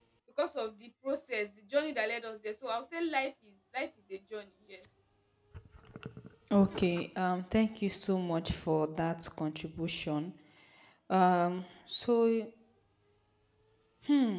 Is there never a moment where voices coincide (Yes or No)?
Yes